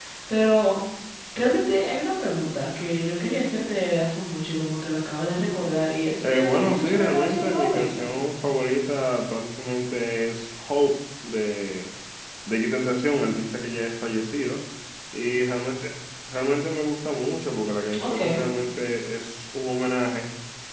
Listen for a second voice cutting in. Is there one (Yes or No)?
Yes